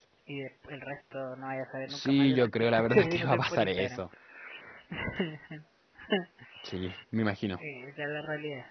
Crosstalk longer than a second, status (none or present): present